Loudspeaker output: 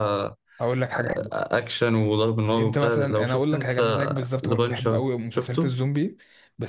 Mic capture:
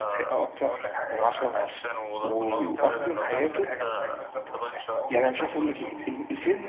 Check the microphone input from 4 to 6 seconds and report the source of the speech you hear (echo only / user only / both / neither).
both